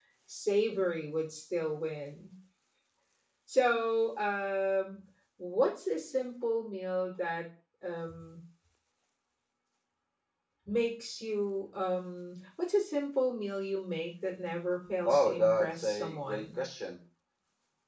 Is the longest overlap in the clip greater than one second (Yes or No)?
Yes